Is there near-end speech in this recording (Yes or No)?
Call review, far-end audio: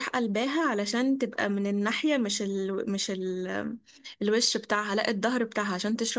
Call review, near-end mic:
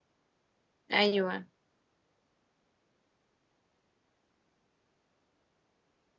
Yes